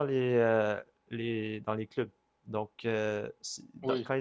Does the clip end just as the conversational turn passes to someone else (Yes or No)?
No